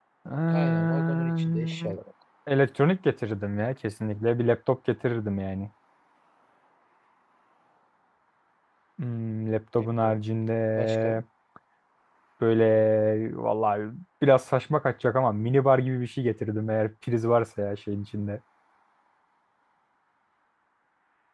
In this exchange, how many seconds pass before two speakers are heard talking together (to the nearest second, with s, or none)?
1 s